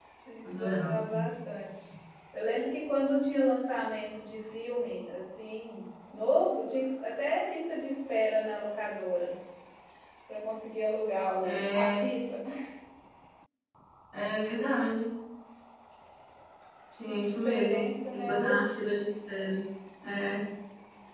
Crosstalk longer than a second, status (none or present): present